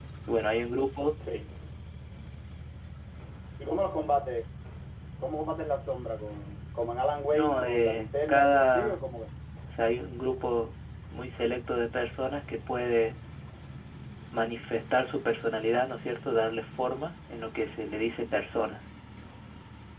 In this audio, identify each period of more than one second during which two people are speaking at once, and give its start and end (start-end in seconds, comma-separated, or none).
7.3-9.1